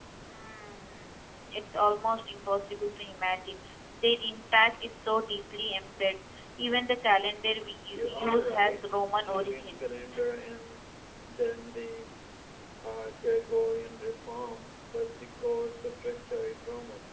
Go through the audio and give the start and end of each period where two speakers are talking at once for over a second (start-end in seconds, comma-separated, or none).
7.9-10.1